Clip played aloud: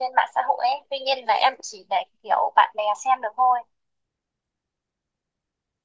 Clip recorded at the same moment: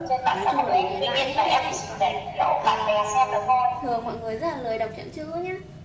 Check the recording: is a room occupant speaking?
Yes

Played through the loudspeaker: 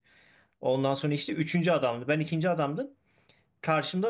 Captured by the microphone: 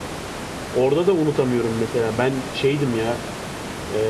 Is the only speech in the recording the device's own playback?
No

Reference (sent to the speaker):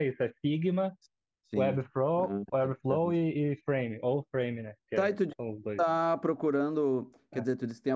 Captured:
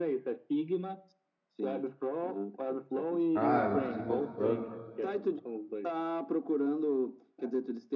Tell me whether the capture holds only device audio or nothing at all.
No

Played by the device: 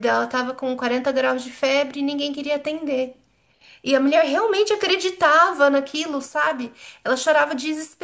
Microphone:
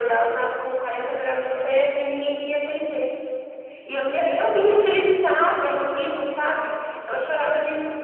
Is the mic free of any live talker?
Yes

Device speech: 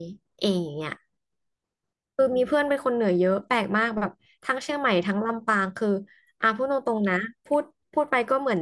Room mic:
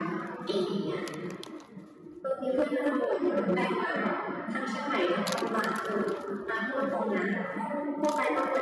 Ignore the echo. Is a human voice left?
No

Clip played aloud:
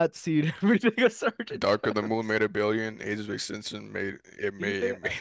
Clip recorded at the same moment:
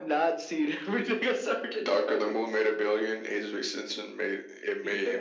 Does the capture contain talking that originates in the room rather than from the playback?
No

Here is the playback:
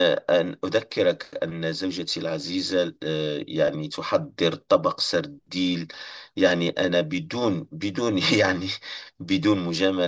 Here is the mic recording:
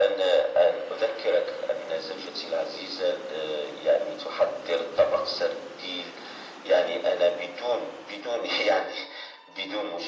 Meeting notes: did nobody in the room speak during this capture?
Yes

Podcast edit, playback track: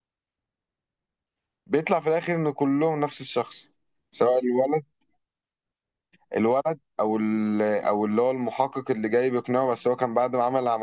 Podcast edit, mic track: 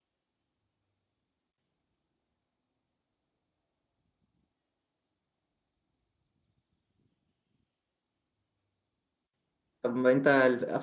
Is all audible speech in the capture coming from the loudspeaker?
No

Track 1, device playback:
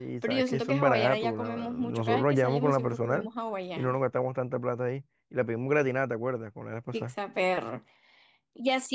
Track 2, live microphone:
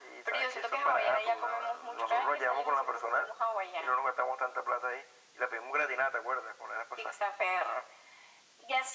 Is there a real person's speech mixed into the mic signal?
No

